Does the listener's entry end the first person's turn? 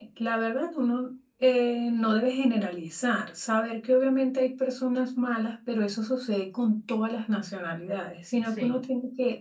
No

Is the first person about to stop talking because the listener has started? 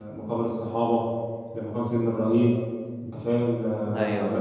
No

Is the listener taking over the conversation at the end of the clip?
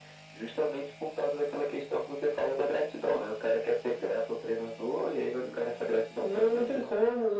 Yes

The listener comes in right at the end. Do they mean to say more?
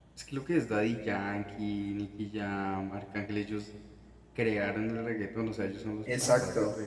Yes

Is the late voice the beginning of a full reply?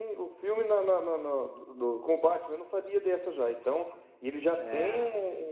No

